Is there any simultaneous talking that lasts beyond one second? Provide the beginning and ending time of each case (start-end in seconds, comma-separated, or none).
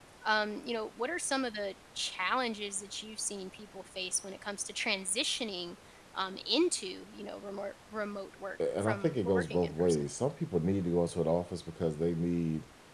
8.8-10.1